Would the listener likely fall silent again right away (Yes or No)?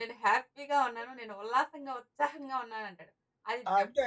Yes